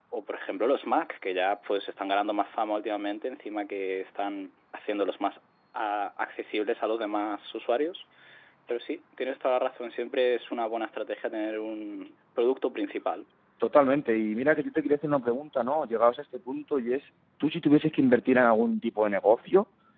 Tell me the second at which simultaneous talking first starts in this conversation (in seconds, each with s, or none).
none